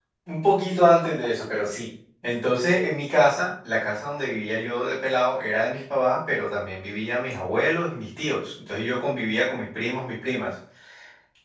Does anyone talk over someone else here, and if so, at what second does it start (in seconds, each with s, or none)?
none